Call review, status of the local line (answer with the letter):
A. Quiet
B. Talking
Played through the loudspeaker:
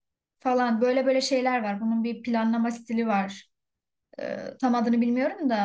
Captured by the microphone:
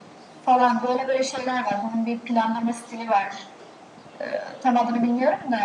A